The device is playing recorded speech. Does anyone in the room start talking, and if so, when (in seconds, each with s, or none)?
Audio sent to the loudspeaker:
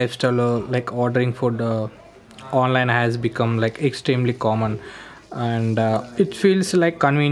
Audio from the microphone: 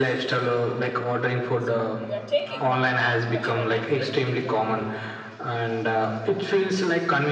1.6 s